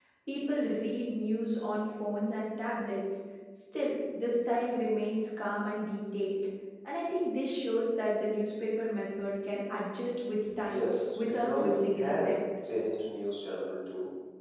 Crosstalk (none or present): present